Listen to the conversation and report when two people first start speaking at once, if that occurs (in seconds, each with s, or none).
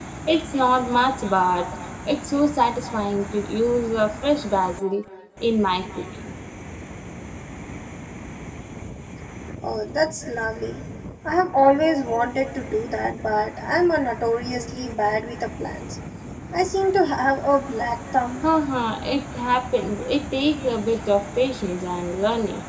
none